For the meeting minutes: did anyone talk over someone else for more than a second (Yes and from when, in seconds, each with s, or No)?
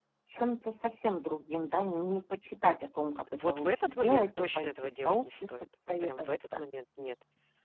Yes, from 3.0 s